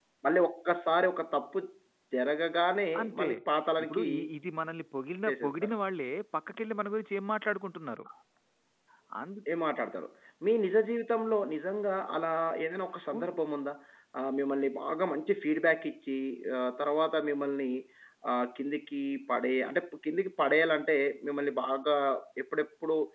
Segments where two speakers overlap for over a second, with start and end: none

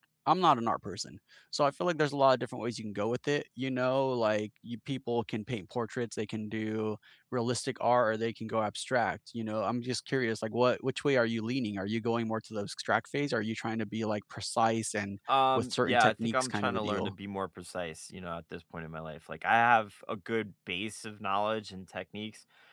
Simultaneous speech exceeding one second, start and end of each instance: 15.6-17.1

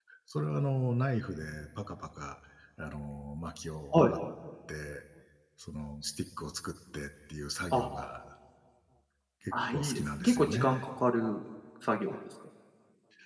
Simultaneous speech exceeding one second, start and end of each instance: 9.5-10.8

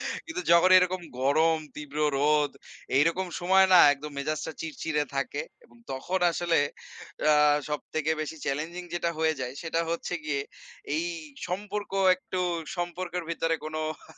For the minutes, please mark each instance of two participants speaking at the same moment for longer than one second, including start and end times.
none

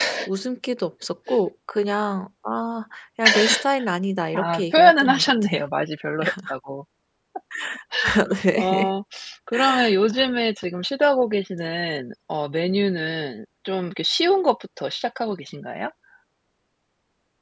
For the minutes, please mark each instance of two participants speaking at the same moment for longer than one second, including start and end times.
4.3-5.6

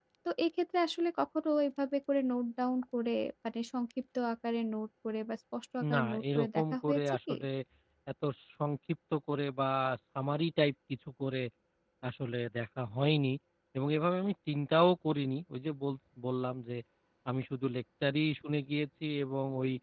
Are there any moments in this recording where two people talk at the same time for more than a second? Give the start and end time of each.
5.9-7.4

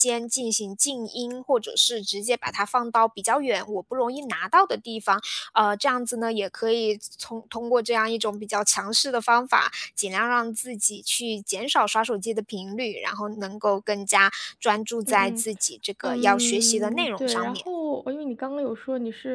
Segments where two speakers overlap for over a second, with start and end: 16.0-17.6

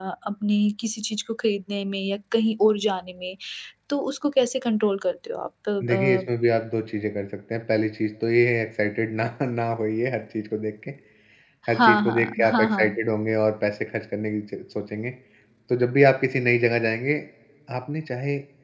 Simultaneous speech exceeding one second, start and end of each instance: 11.8-13.0

